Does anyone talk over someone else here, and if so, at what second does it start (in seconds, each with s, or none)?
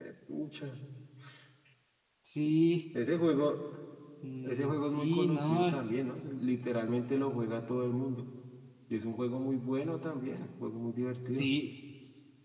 4.4 s